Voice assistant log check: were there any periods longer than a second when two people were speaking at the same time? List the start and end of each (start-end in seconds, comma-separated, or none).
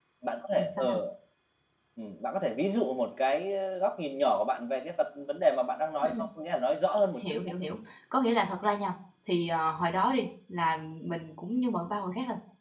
none